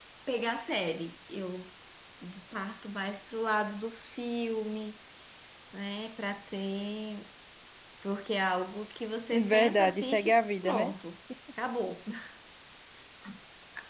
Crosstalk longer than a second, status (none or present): present